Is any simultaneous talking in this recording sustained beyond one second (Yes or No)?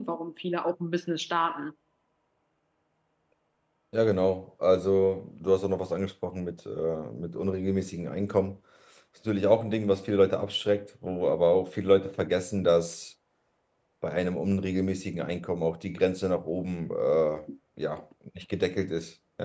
No